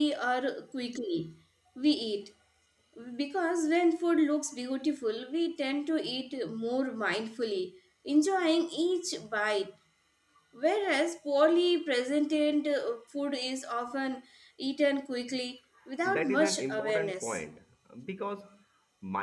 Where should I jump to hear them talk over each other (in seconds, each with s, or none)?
16.1 s